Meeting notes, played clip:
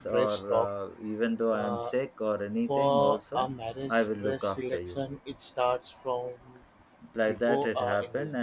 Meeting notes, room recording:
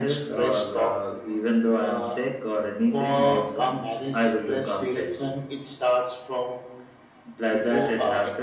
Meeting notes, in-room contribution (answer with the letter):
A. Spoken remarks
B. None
B